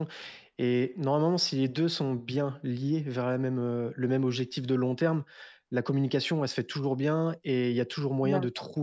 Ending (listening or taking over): listening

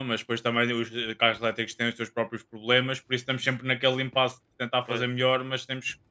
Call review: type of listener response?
listening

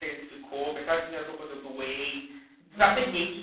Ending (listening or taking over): listening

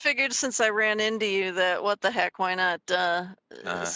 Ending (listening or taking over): listening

